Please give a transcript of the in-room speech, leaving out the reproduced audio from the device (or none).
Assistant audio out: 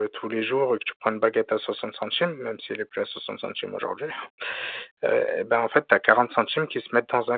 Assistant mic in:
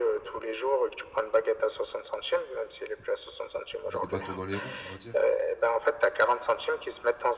mis des bâtons dans les roues, on va dire.